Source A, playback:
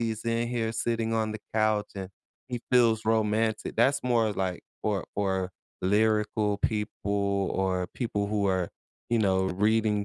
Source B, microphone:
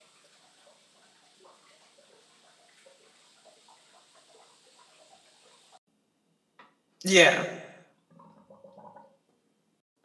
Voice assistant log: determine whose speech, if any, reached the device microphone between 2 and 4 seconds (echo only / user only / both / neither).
neither